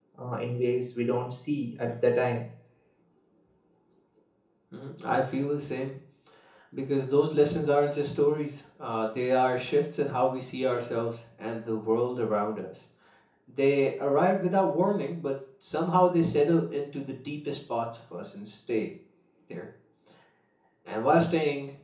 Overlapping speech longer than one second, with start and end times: none

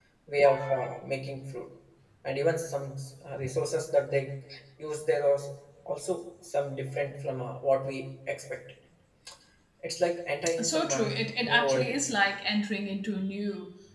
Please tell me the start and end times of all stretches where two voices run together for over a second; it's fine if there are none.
10.6-12.2

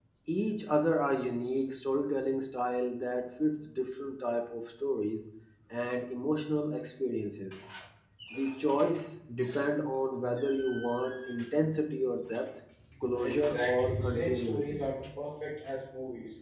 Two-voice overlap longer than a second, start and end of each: 13.2-14.8

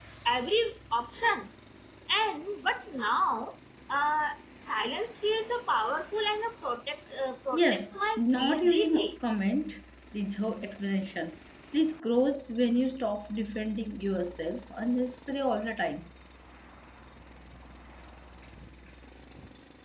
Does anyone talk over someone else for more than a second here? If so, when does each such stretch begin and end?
7.5-9.2

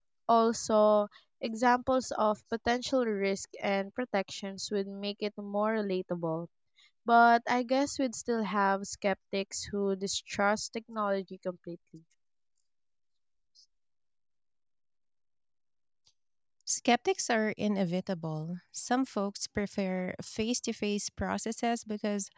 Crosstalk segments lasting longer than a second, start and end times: none

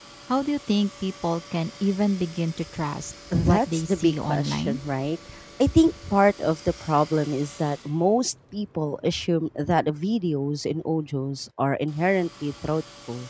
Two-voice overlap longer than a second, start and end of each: 3.4-4.8

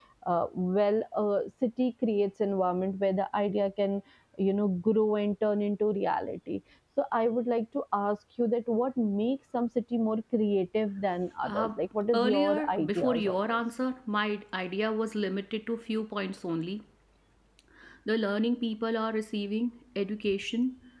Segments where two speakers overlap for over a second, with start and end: 12.1-13.6

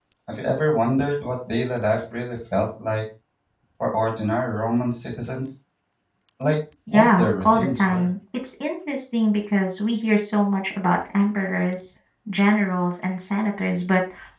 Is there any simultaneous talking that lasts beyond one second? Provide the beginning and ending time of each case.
6.9-8.1

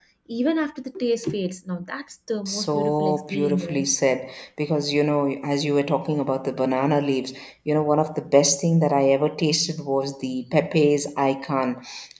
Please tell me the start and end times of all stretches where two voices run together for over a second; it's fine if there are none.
2.5-3.9

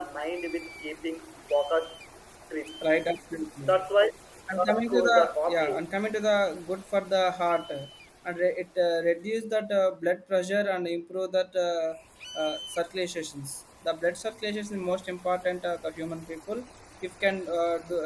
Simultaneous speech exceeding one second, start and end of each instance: 4.5-5.7

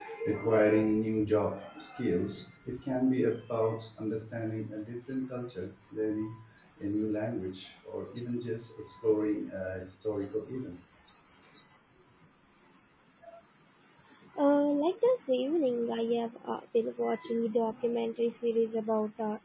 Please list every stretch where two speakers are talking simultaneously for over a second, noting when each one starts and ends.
none

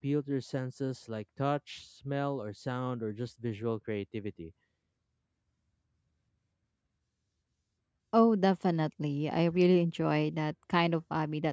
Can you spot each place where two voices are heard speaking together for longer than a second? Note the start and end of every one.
none

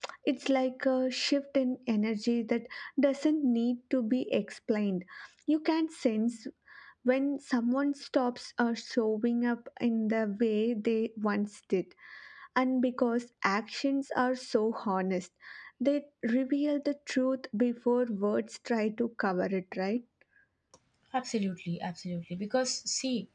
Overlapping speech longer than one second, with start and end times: none

